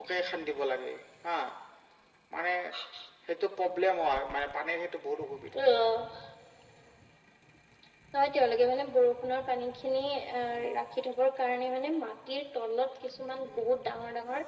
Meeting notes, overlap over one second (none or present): none